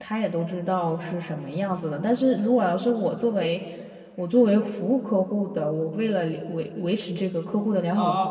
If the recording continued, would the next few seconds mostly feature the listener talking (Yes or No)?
Yes